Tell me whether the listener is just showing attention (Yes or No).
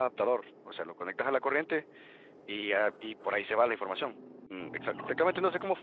Yes